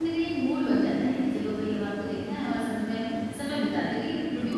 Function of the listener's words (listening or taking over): taking over